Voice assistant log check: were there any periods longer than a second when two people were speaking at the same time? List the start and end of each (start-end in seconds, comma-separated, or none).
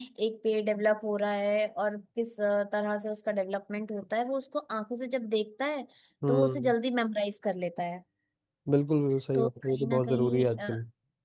9.3-10.7